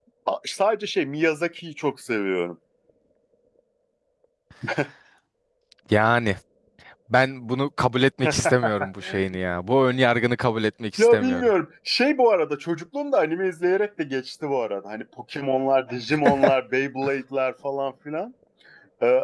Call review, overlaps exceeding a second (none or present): none